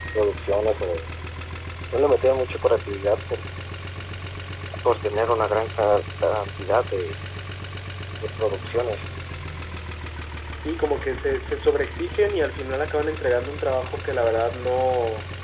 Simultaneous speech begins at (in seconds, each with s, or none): none